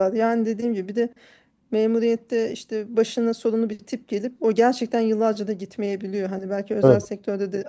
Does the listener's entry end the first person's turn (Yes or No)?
No